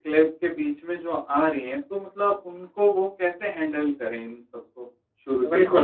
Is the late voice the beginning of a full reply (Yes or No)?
Yes